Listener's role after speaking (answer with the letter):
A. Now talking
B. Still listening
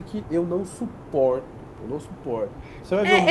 A